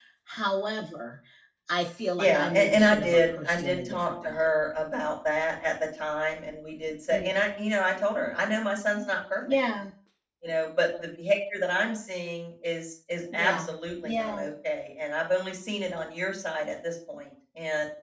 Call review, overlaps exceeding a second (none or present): present